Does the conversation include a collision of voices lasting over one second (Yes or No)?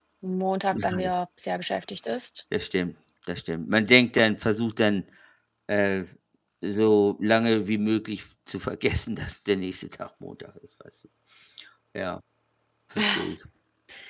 No